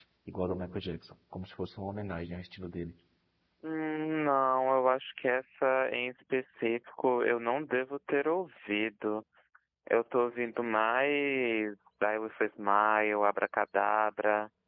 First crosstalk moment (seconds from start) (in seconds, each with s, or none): none